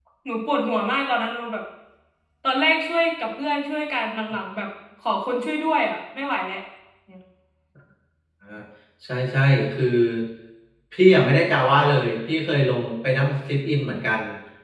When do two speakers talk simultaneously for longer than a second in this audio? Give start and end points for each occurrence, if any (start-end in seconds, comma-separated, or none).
none